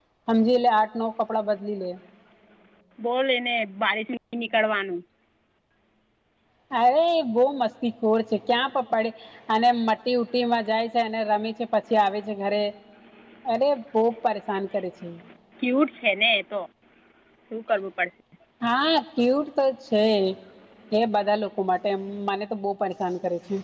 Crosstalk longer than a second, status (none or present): none